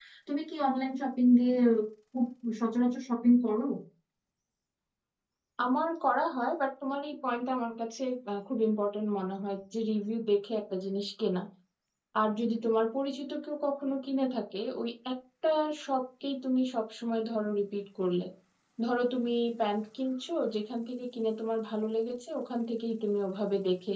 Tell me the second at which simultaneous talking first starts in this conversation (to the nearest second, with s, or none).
none